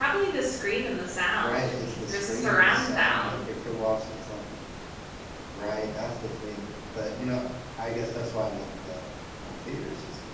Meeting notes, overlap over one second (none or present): present